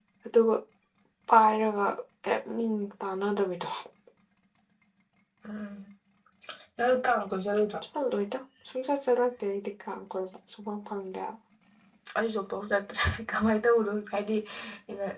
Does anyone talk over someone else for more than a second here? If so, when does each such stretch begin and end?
none

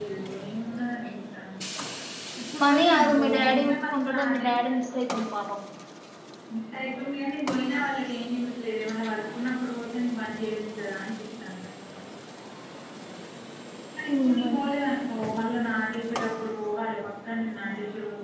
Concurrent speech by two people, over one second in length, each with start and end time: 2.6-5.2

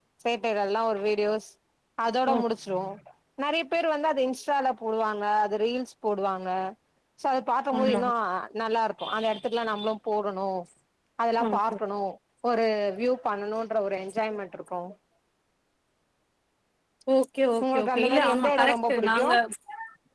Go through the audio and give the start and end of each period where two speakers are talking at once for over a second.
17.6-19.3

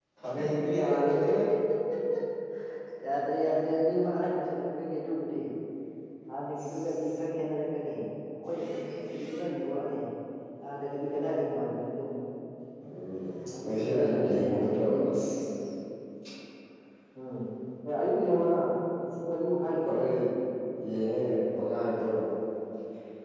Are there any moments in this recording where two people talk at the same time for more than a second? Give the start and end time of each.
13.5-15.0

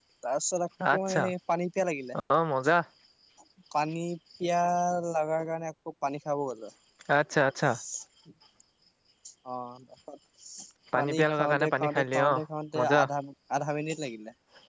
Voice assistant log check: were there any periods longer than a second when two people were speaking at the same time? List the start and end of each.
10.9-12.4

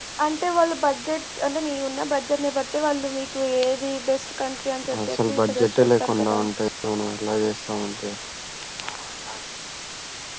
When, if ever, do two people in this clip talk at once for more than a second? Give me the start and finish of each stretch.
5.1-6.4

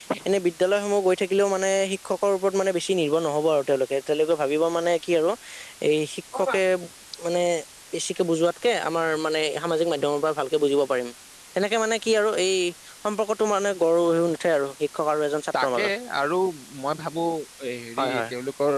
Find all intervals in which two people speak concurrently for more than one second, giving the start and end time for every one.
none

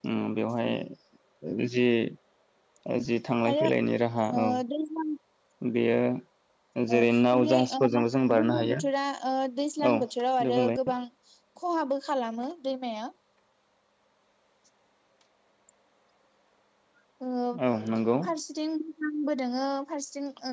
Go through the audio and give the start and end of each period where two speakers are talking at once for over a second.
7.0-8.8

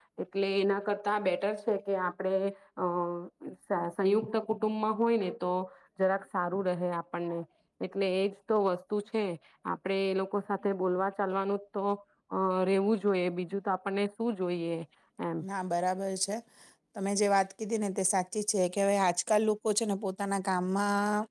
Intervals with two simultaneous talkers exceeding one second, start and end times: none

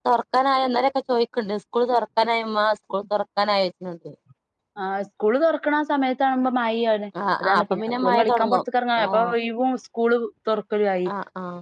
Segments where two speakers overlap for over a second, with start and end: 7.4-8.6

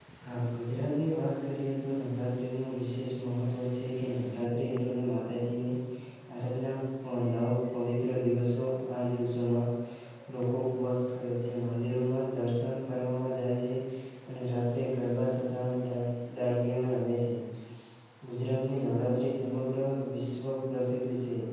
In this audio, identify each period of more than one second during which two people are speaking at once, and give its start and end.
none

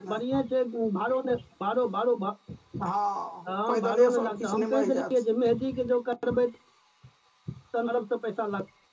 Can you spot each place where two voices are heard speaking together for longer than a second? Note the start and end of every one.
3.7-5.0

